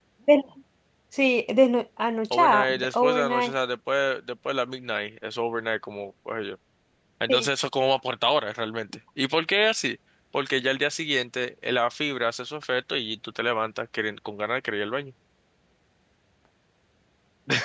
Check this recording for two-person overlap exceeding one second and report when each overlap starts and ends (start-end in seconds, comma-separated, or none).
2.3-3.5